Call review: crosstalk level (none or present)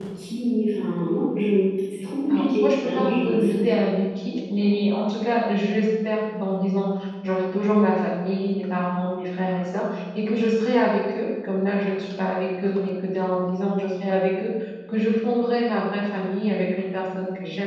present